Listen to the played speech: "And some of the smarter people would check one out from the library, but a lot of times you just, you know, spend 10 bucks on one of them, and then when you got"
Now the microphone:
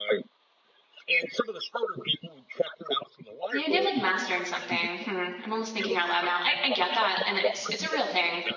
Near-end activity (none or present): present